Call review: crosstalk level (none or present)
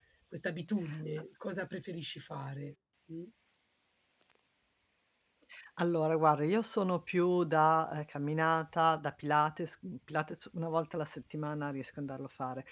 none